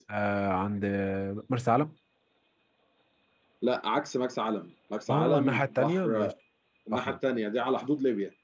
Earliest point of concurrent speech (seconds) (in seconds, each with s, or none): 5.1 s